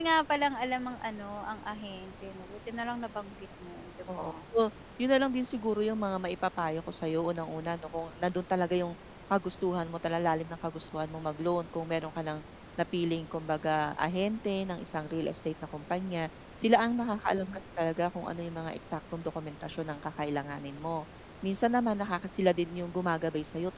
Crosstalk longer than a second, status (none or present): none